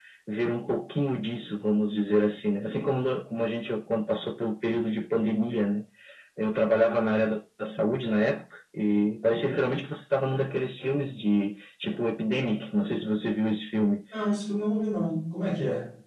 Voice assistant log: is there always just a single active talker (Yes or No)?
Yes